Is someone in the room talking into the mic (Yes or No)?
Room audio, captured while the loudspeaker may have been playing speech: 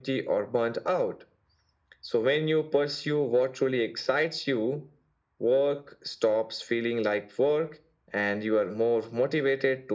No